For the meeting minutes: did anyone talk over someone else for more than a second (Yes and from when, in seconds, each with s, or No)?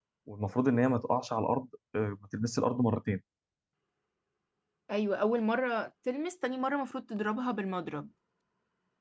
No